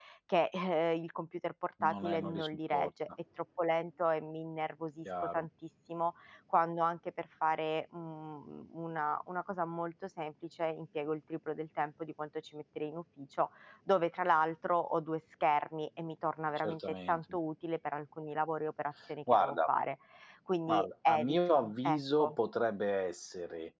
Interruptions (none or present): present